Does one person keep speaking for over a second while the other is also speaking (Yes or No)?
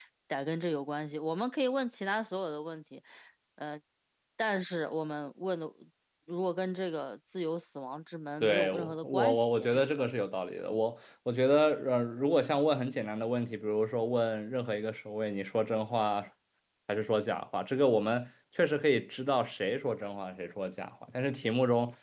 Yes